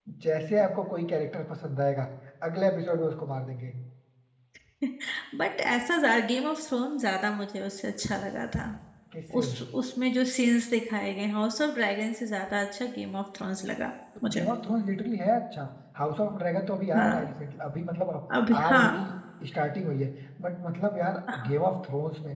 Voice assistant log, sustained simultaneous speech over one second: none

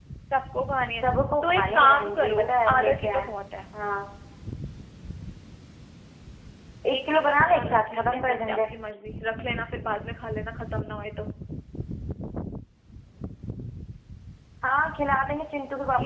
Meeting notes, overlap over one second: present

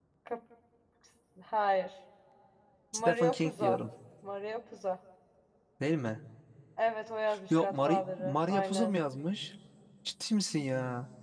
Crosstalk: present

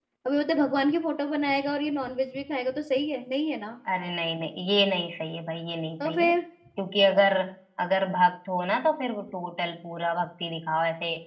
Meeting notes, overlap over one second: none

